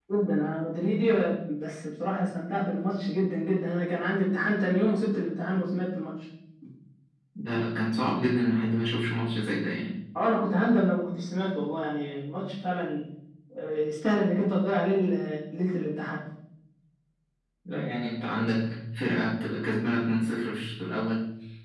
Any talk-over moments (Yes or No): No